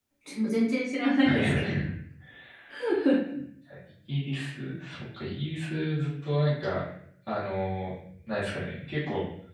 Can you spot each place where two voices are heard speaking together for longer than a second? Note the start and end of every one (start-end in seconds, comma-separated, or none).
none